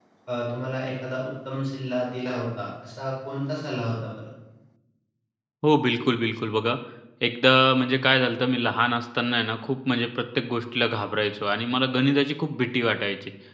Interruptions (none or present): none